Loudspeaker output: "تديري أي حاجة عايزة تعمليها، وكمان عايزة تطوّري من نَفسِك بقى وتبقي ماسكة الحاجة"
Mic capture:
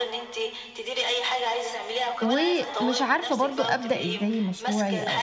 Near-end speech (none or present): present